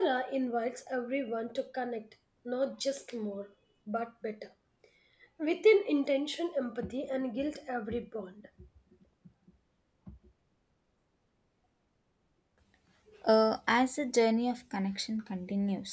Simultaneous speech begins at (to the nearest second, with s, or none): none